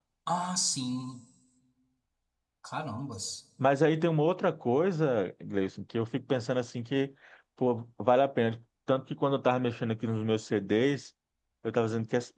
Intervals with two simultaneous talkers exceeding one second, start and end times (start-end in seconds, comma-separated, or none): none